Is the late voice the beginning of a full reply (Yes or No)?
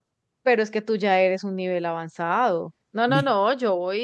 No